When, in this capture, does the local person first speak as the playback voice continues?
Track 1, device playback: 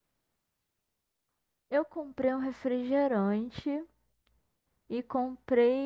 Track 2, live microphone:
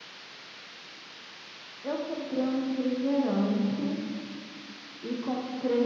none

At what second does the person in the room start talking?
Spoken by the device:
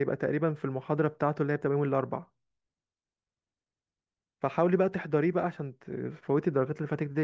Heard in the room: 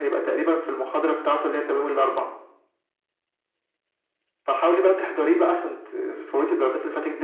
none

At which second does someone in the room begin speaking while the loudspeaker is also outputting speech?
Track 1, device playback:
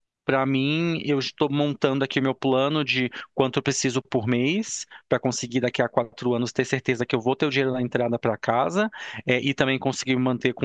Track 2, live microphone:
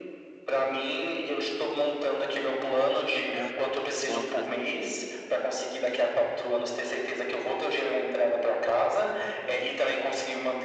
3 s

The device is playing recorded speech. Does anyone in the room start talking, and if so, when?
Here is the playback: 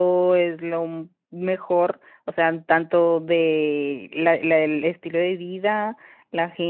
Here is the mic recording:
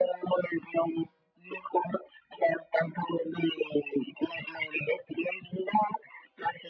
none

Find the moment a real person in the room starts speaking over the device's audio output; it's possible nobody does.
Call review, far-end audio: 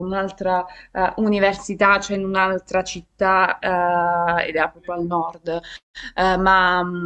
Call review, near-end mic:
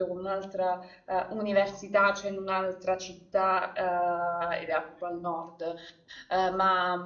none

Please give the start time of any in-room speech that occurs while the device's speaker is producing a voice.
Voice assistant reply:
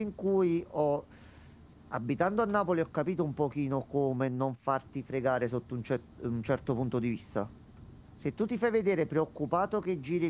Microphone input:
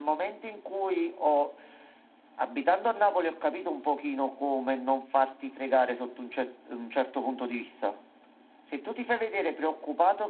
none

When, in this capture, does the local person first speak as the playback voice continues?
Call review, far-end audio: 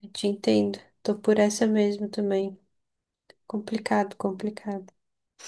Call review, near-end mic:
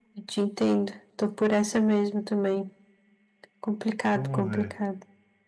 4 s

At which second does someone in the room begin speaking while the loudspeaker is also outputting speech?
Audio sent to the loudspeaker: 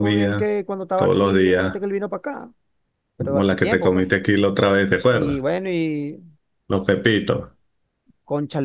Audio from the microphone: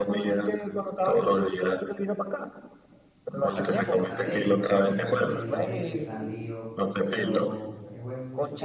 3 s

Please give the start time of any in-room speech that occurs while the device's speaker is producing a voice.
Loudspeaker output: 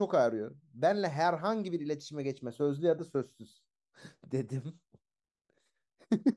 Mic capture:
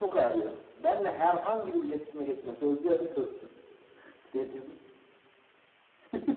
none

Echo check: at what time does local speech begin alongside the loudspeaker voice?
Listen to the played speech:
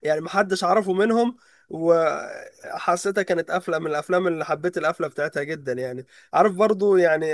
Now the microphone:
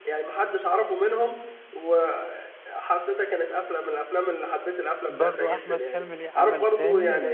5 s

